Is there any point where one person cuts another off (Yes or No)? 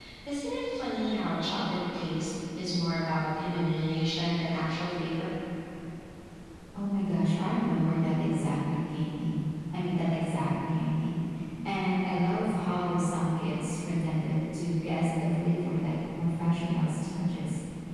No